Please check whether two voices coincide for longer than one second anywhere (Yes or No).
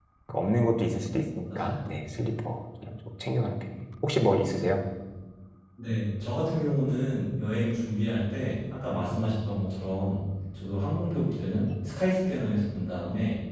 No